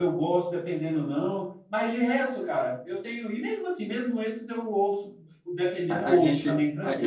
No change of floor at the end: No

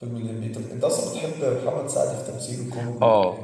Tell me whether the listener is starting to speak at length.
Yes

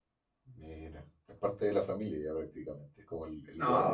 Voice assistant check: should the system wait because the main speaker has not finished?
No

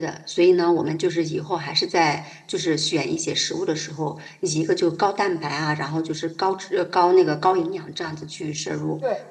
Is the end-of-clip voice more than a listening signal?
No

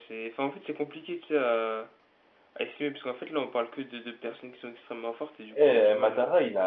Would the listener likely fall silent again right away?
No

